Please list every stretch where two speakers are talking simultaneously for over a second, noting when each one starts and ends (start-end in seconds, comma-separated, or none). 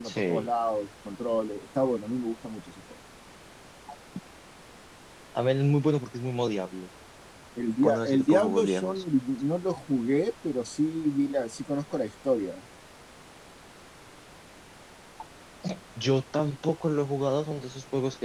7.8-9.0